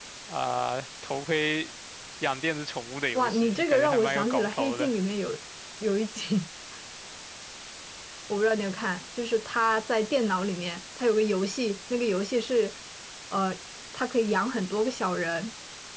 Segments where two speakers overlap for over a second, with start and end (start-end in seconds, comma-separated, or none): 3.1-4.9